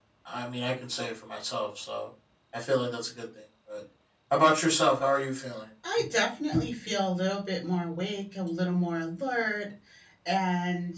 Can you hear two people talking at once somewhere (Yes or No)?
No